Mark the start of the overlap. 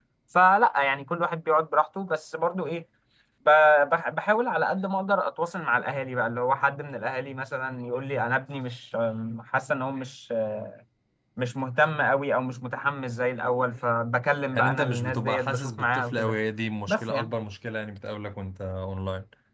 15 s

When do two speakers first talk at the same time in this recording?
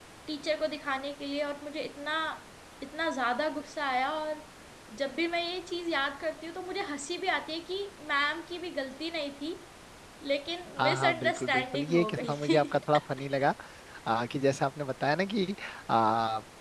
11 s

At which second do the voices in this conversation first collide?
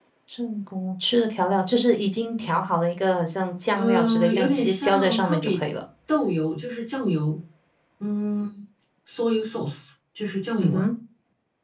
4 s

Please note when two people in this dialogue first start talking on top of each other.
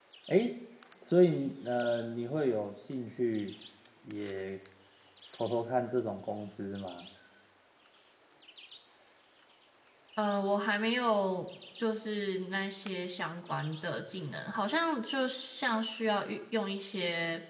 none

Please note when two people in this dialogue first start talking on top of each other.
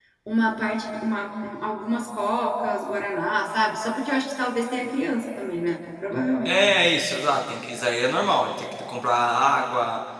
none

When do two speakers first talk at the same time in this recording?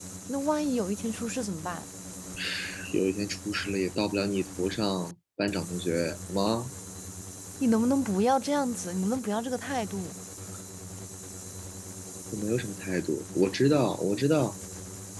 none

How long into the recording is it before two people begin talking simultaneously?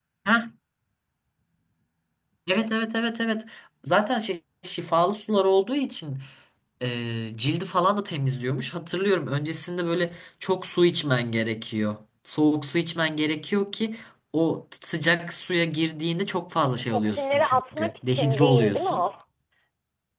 17 s

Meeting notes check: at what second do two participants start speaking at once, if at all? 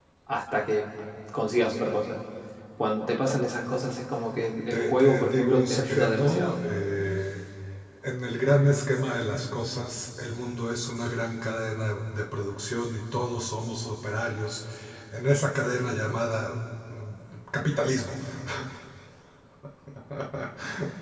5 s

